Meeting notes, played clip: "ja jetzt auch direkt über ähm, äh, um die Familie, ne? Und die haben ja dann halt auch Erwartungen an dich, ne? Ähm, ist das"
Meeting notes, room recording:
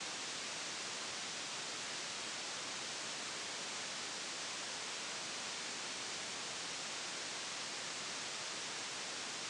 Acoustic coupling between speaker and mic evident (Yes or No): No